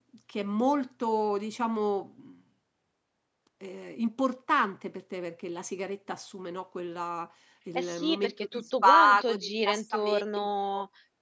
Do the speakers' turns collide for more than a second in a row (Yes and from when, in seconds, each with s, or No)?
Yes, from 7.8 s